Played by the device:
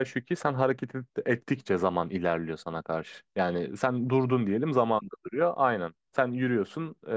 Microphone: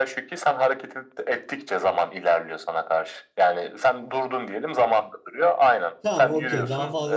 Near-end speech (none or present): present